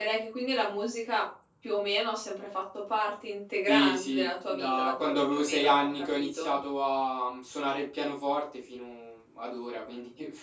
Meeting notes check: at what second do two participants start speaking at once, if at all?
4 s

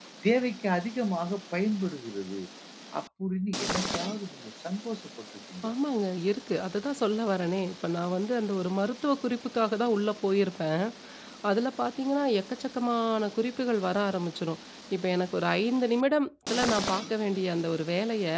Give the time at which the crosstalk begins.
none

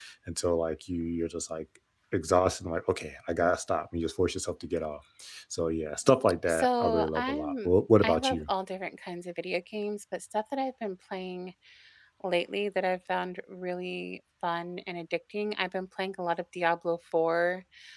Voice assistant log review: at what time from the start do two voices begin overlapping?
6 s

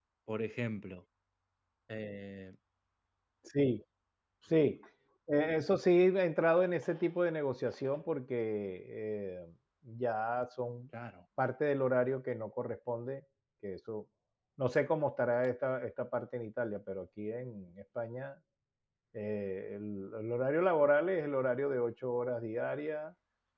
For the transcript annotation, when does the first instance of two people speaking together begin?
none

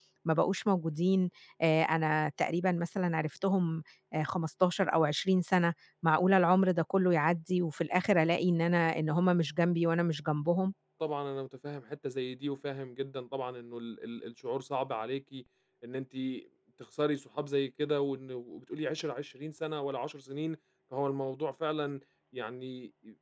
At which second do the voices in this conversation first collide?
none

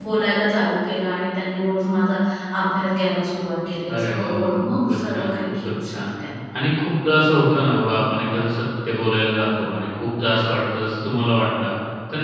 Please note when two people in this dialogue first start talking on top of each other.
4 s

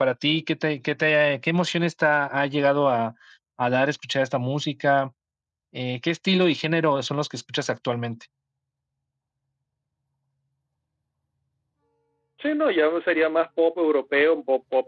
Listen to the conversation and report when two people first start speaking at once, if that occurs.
none

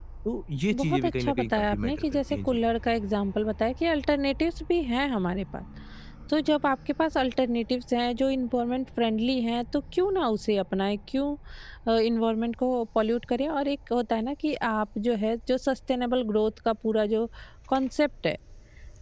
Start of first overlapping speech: 1 s

